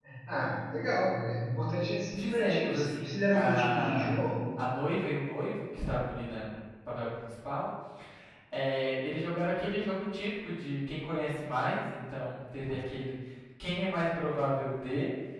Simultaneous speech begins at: 2.1 s

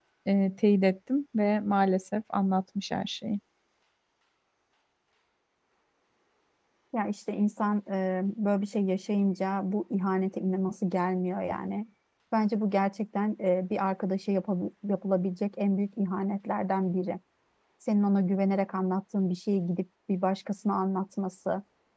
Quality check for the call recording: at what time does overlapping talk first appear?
none

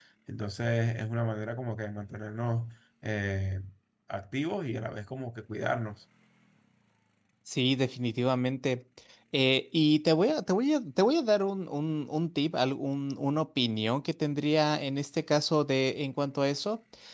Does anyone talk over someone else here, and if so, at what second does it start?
none

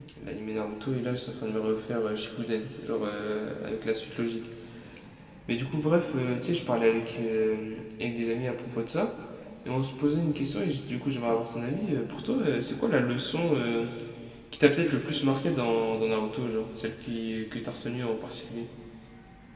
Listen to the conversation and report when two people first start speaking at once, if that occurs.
none

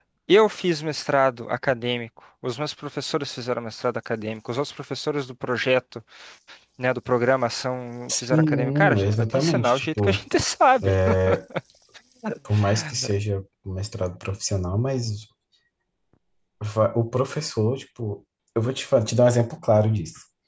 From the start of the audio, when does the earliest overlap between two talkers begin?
8.1 s

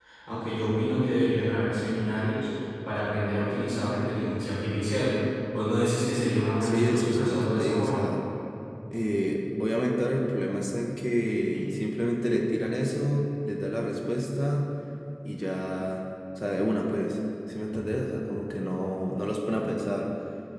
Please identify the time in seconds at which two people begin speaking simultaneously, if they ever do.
6.6 s

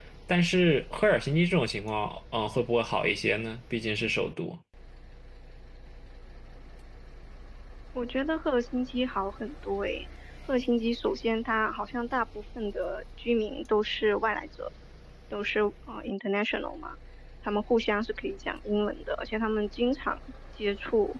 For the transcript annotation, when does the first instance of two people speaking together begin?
none

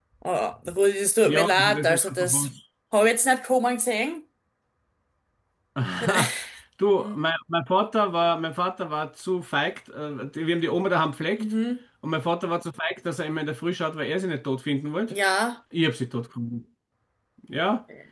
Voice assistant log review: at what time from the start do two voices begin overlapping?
1.2 s

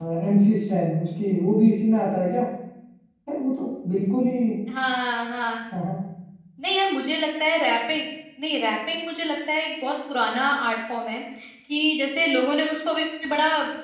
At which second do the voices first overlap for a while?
none

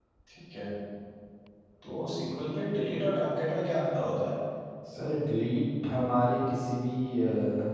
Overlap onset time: none

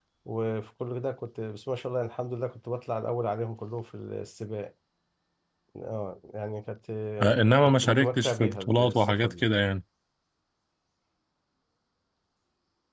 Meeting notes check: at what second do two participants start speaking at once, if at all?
7.2 s

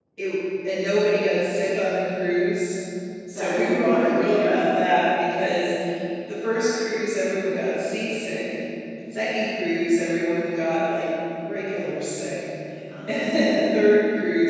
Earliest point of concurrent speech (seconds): 3.4 s

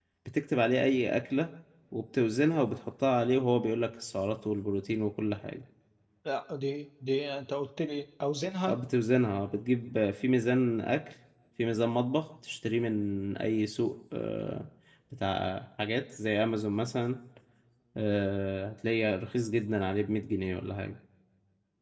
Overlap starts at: none

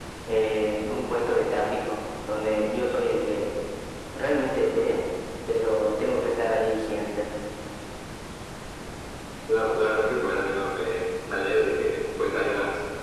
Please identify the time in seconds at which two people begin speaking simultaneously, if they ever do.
none

